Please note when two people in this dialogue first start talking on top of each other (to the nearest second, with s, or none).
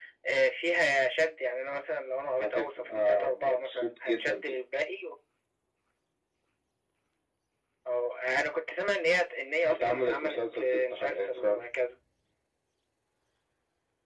2 s